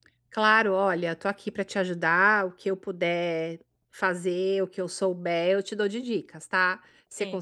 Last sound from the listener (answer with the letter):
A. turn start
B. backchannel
B